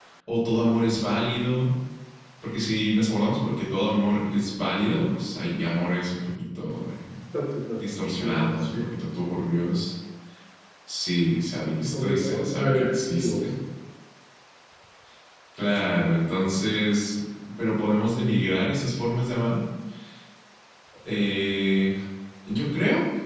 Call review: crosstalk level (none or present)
present